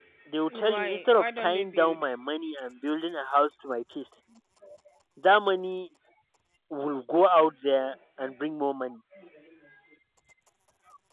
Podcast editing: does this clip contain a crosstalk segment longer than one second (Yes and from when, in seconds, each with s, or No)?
Yes, from 0.5 s